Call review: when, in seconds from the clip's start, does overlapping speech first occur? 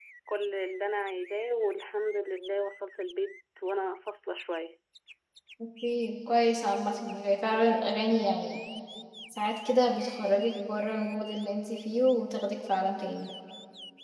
none

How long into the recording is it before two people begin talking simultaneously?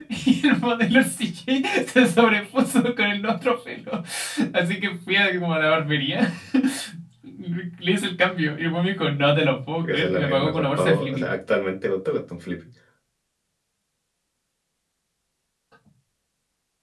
9.8 s

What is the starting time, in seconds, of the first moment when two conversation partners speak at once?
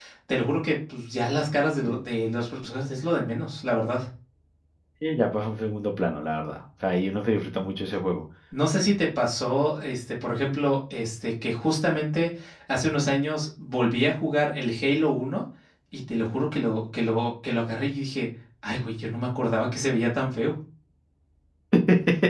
none

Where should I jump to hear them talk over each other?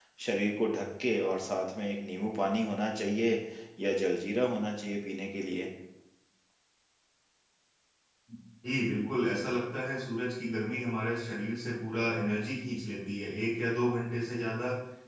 none

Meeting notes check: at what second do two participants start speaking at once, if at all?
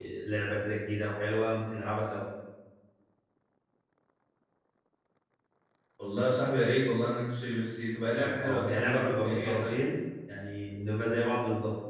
8.1 s

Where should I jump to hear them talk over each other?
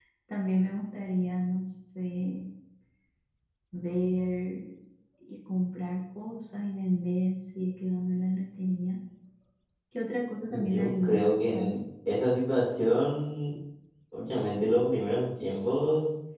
10.5 s

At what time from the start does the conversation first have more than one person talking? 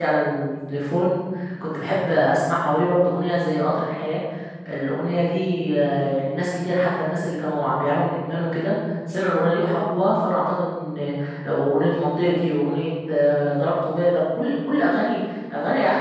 none

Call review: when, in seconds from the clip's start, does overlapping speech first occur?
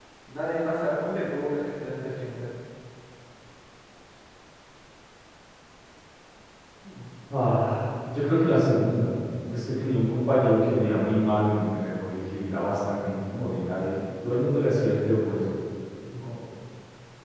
none

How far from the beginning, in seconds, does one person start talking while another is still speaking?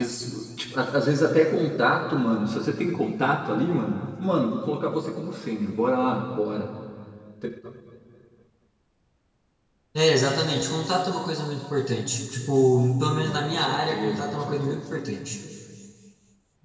13.2 s

